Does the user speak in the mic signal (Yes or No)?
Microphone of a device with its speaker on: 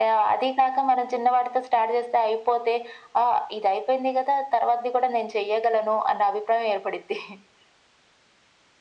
No